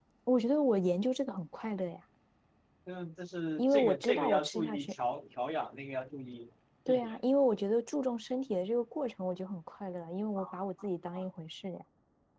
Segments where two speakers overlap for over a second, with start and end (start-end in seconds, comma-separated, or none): 3.6-4.9